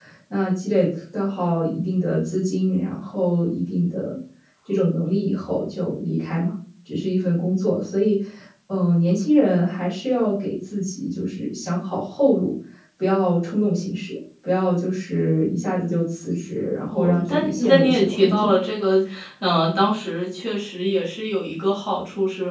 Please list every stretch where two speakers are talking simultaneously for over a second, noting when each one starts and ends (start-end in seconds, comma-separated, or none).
16.9-18.6